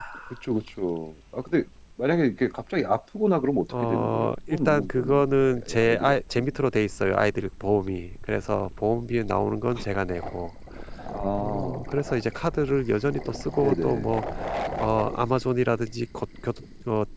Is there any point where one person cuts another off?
Yes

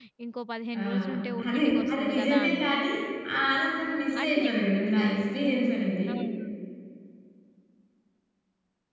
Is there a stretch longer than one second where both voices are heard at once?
Yes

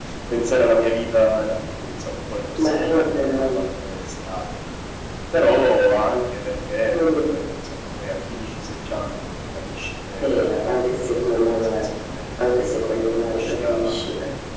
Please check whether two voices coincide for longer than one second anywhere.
Yes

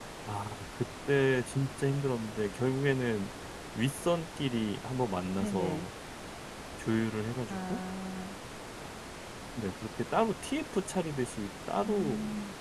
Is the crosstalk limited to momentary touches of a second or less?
Yes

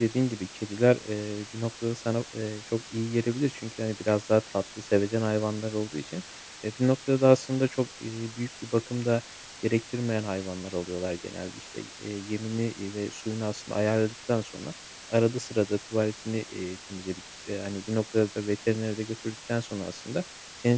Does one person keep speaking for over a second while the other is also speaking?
No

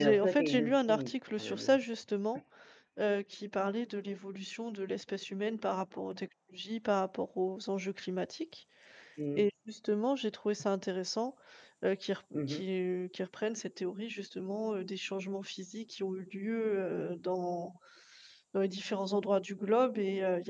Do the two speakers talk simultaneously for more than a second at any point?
Yes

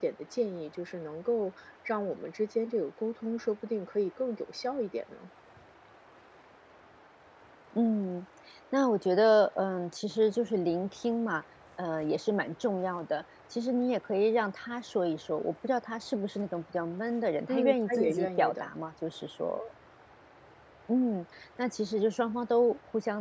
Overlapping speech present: Yes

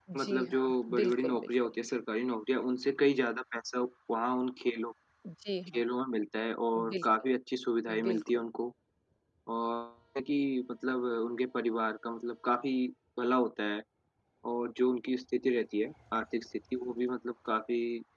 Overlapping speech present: Yes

